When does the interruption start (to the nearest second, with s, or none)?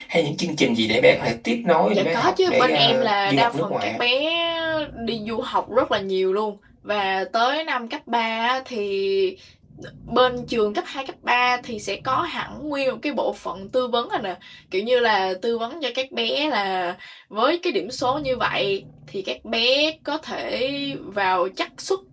2 s